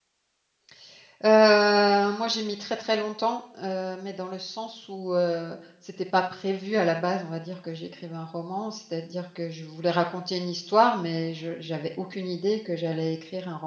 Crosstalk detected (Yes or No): No